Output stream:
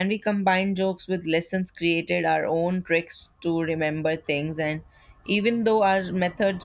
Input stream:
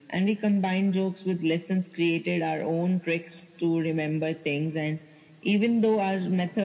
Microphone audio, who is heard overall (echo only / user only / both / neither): echo only